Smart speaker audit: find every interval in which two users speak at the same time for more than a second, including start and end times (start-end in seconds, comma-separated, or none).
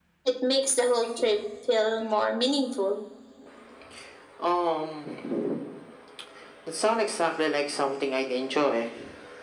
none